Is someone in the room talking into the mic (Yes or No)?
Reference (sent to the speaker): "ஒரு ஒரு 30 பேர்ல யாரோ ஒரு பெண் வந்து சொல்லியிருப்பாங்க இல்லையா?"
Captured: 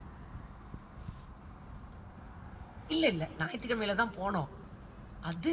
Yes